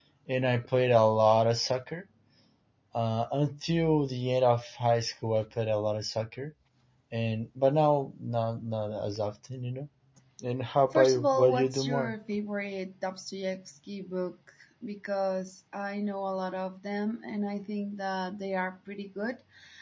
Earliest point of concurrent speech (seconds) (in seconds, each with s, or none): 10.9 s